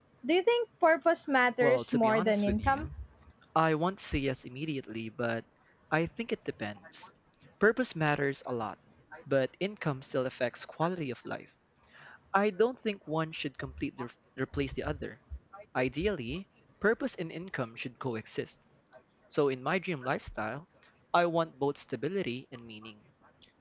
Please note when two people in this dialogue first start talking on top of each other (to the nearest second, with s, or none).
2 s